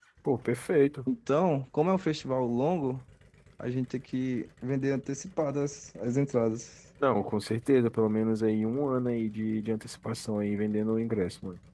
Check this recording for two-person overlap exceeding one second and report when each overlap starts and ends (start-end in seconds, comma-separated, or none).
none